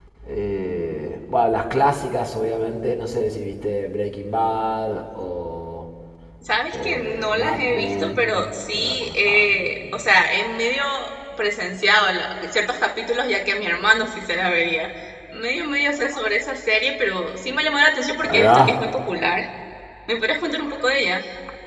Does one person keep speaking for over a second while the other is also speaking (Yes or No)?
Yes